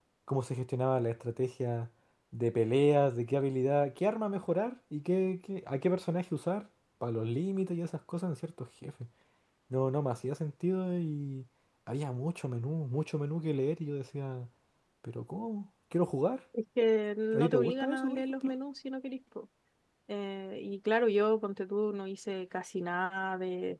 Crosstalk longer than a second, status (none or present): present